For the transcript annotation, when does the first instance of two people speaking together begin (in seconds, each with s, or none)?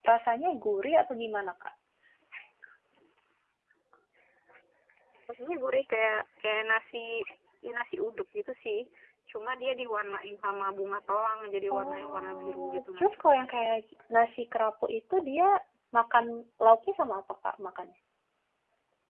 11.7 s